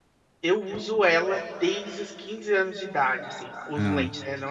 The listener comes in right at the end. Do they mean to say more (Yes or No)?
No